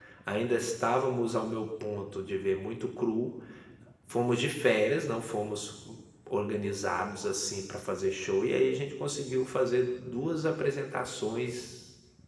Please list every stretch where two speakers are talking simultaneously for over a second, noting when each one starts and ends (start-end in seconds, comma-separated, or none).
none